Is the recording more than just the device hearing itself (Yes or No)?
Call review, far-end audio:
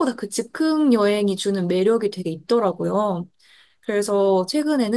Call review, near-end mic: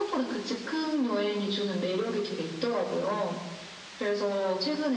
No